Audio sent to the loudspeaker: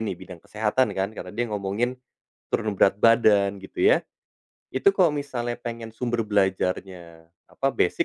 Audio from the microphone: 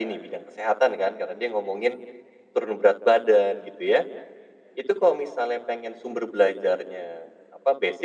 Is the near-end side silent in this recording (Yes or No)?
Yes